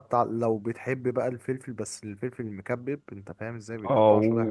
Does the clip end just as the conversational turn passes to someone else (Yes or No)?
Yes